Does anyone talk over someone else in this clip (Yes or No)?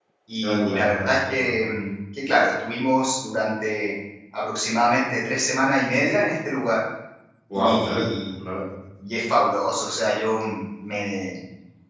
Yes